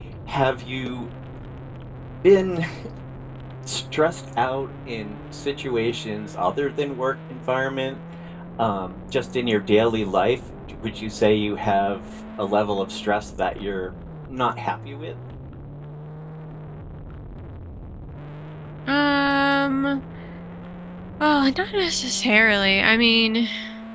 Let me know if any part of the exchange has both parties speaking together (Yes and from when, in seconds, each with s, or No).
No